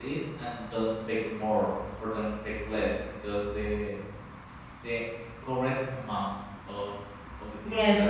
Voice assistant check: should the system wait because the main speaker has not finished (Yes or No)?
No